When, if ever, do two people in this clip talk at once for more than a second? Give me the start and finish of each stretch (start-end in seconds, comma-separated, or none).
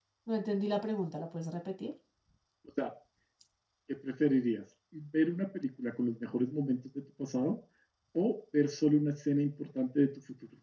none